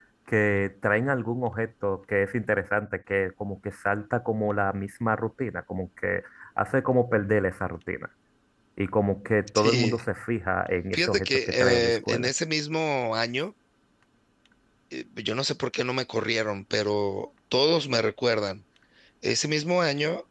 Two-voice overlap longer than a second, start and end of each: 10.9-12.3

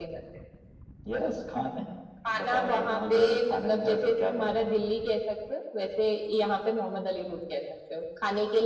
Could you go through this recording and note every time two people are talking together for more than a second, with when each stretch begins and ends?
2.3-4.6

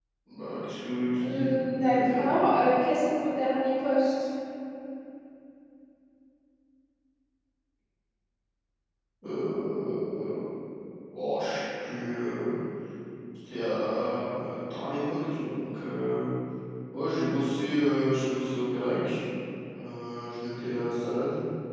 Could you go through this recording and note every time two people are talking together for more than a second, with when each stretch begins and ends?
1.2-2.5

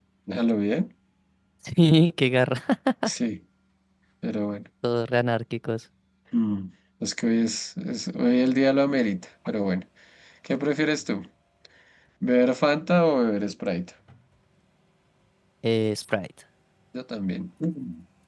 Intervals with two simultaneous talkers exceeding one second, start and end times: none

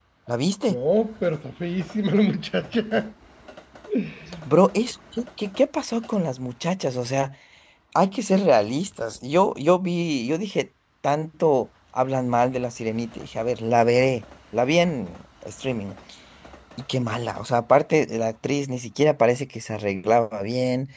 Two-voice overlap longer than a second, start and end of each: none

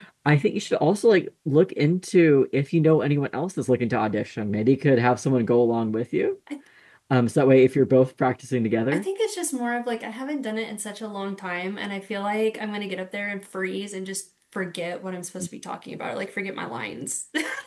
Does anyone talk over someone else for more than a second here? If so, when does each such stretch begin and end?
none

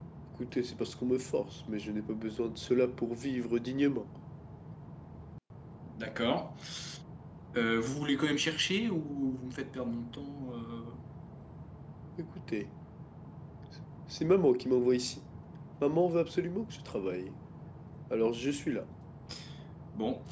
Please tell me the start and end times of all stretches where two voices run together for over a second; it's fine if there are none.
none

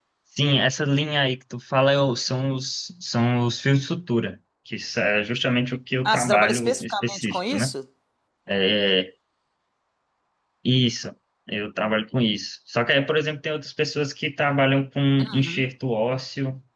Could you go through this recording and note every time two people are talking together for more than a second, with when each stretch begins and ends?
6.0-7.7

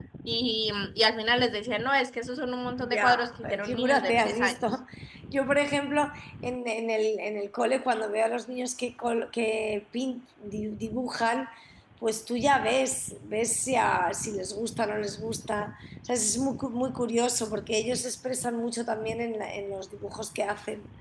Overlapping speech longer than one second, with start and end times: 2.8-4.6

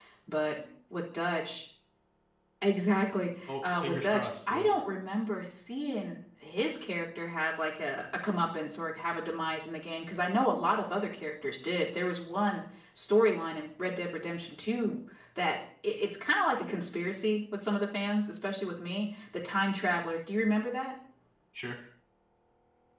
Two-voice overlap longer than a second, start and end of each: 3.5-4.7

